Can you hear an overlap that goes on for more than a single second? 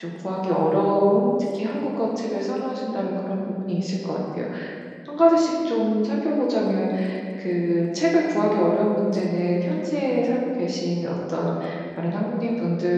No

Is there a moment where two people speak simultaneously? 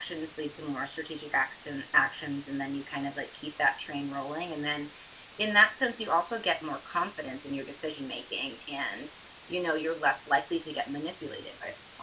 No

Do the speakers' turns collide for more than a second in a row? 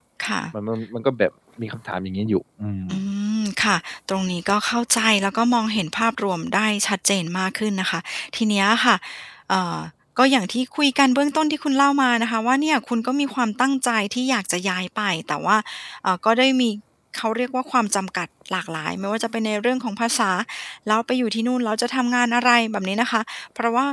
No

